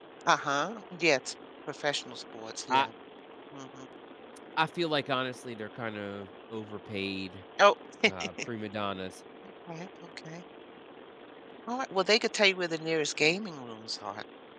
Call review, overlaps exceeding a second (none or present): none